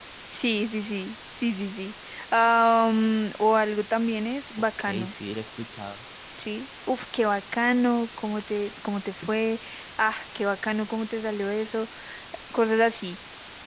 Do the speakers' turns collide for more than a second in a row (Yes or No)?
No